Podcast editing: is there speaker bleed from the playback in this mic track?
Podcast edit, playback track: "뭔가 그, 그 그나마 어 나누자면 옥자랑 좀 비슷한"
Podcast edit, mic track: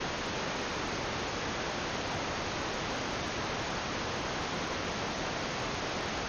No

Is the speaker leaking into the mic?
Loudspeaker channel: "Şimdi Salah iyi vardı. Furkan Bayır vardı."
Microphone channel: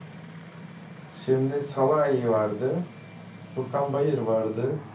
Yes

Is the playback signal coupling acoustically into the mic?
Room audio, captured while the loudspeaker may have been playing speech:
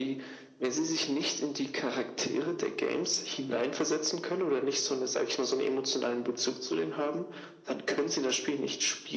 Yes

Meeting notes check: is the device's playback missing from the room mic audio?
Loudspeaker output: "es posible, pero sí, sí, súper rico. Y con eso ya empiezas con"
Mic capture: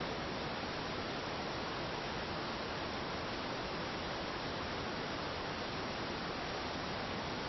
Yes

